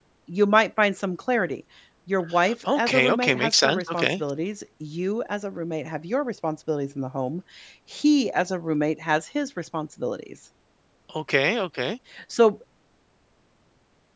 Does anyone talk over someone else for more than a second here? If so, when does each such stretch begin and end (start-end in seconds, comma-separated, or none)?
2.6-4.2